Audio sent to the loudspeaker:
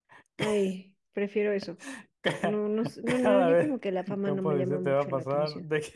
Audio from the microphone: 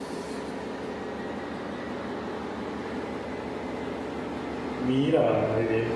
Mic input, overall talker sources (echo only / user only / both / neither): user only